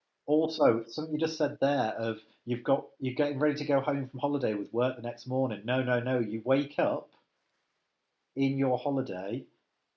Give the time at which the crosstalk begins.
none

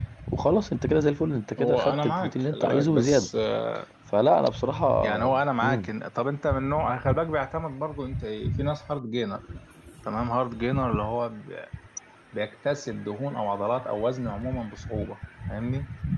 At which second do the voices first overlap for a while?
1.6 s

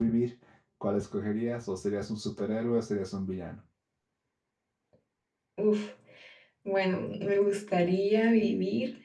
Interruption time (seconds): none

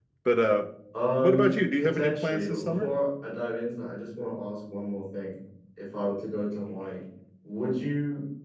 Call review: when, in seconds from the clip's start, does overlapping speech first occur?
1.2 s

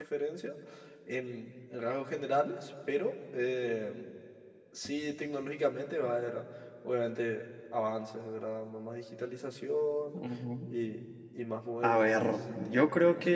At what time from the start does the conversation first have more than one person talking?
11.8 s

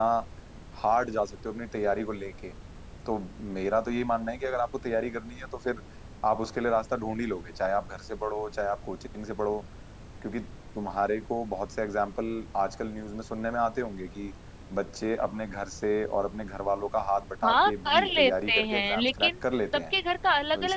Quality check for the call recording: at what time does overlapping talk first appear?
17.4 s

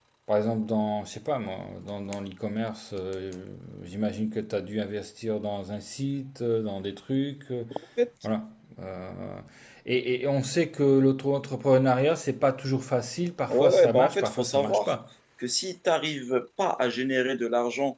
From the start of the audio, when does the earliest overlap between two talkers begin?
13.5 s

